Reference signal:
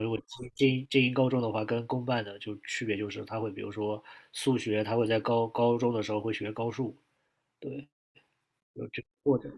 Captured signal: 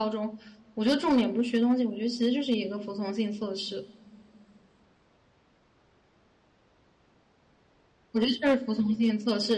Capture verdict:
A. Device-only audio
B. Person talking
B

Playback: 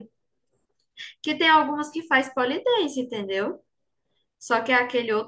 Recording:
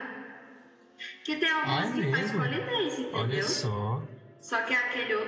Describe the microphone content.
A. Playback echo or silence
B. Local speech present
B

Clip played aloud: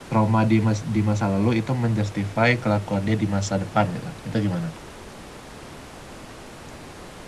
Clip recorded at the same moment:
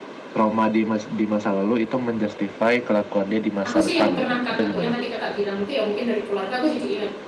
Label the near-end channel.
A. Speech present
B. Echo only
A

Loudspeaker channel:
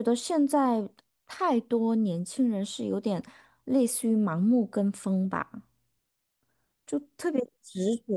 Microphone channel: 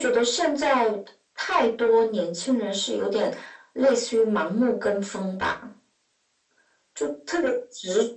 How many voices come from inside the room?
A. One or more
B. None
B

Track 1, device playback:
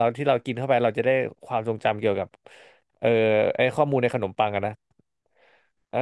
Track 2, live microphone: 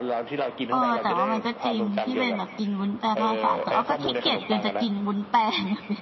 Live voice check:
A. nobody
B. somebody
B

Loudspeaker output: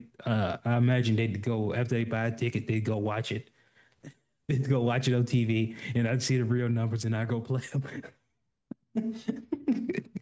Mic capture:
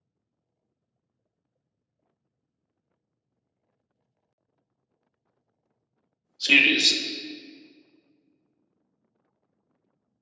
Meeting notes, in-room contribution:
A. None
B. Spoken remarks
B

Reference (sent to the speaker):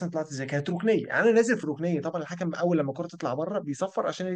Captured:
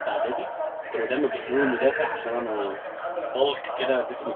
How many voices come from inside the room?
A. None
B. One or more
B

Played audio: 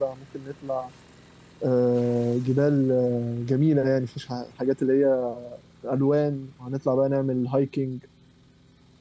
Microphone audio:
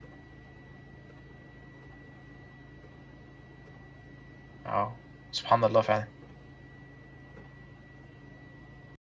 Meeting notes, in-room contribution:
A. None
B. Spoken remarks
B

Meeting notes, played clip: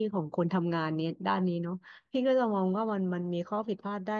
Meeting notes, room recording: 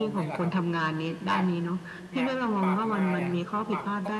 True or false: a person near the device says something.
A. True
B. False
A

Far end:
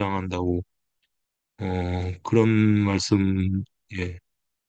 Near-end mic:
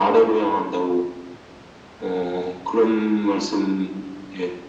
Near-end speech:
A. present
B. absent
B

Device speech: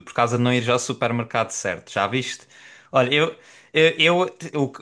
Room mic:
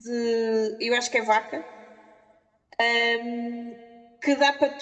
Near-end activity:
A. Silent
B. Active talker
B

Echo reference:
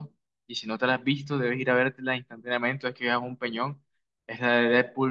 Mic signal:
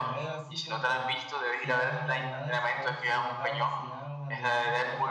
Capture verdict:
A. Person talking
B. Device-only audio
A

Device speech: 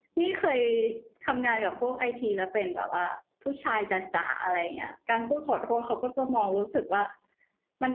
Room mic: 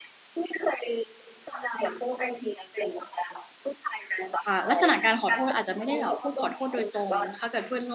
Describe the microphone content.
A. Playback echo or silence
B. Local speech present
B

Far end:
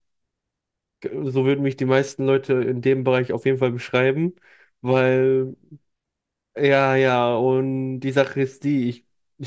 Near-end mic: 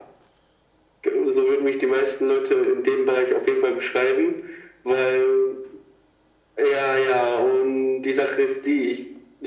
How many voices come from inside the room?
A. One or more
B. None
B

